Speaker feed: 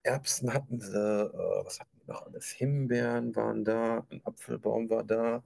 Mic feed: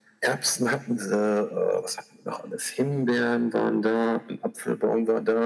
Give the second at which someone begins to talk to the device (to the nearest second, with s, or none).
none